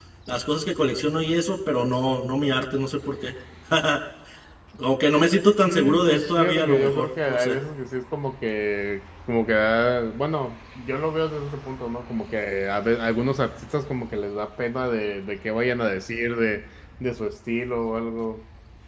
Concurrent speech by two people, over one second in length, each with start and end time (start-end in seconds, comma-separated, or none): 5.7-7.6